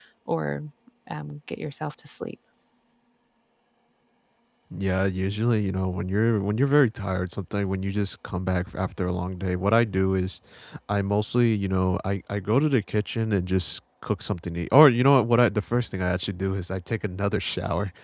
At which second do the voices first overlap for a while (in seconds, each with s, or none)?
none